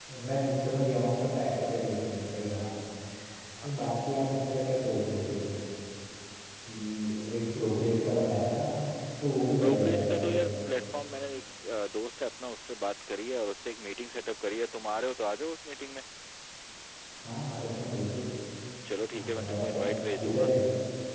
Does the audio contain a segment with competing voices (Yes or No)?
Yes